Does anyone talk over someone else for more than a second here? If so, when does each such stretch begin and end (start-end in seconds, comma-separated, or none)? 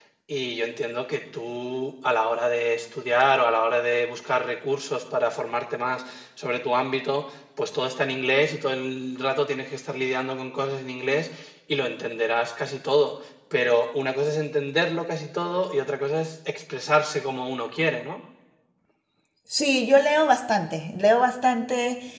none